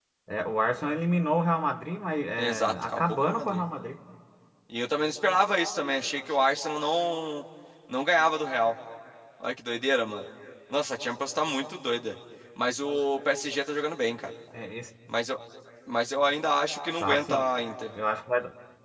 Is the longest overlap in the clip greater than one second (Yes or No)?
Yes